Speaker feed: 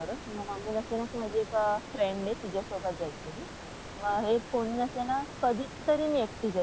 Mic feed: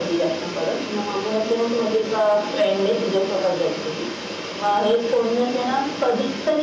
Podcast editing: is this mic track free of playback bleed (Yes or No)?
No